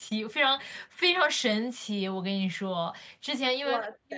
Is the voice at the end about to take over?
No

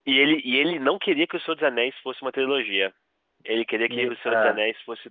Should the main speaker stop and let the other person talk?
No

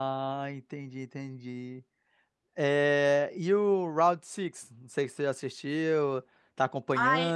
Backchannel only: No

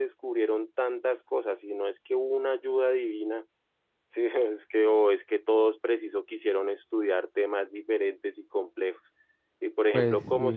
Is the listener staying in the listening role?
Yes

